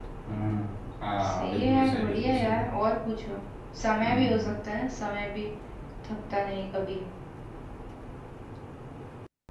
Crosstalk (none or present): present